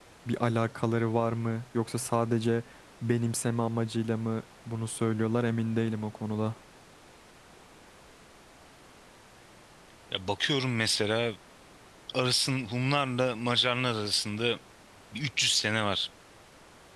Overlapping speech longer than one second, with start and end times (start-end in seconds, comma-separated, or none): none